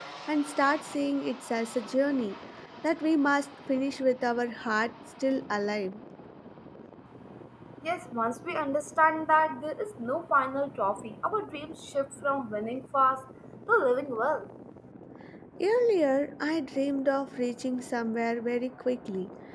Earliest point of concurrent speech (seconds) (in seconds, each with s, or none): none